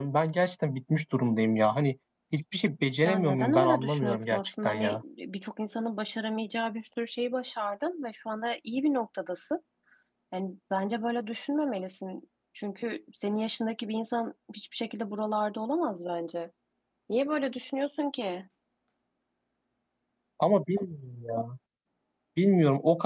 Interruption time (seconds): 3.0 s

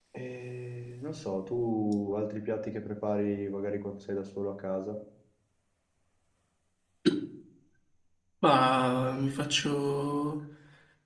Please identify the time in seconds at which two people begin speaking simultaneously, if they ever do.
none

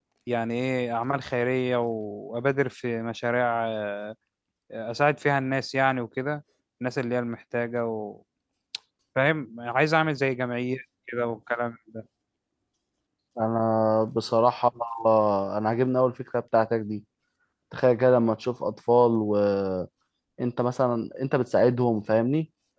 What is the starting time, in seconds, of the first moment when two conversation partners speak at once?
none

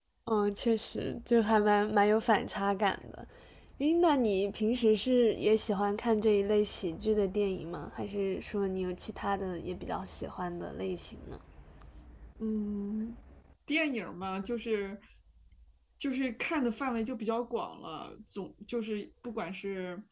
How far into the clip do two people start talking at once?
none

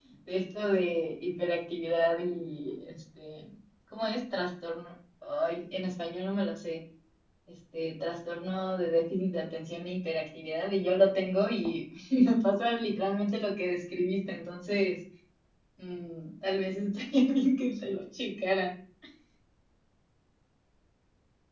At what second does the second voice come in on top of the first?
none

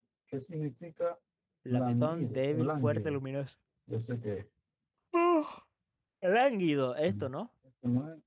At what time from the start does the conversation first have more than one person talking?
1.7 s

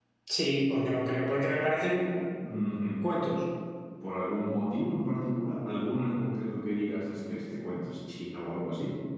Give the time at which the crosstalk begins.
none

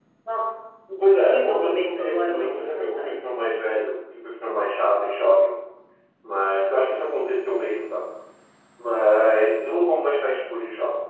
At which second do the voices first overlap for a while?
1.0 s

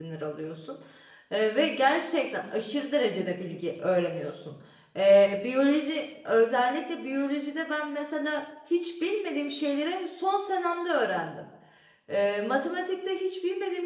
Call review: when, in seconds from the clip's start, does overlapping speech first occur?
none

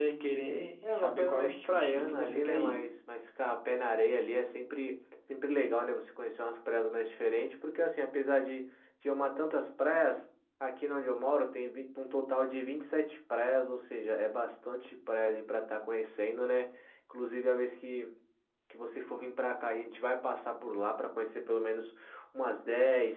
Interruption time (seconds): 1.0 s

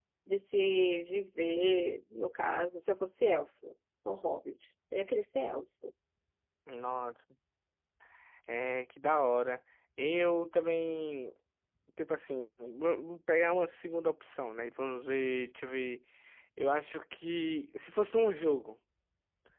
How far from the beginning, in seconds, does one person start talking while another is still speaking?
none

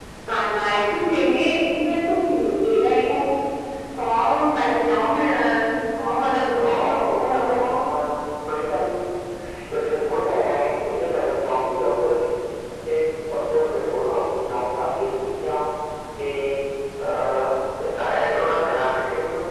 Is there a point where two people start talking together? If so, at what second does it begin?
6.6 s

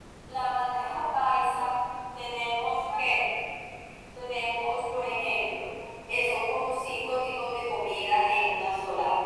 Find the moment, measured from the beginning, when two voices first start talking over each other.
none

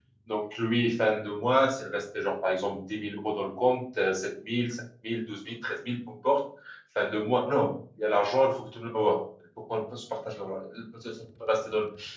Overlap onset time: none

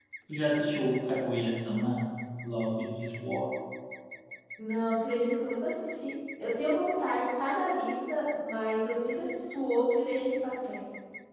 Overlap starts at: none

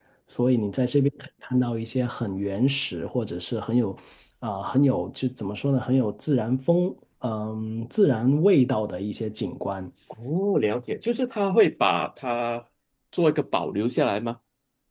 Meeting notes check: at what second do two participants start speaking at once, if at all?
none

